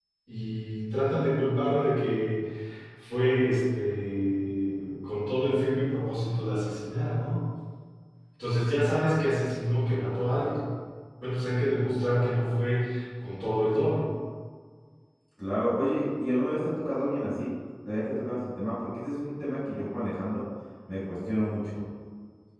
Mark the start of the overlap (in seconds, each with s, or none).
none